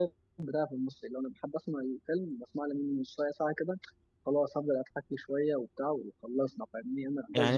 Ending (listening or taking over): taking over